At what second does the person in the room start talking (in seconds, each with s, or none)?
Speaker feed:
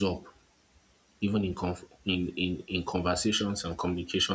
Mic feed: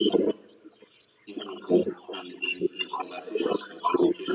none